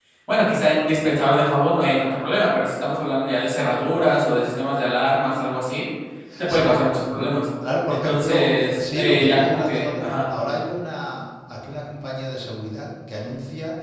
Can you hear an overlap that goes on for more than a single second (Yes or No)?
Yes